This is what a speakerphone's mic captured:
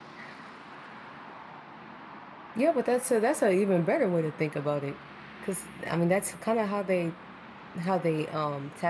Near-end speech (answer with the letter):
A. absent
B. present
B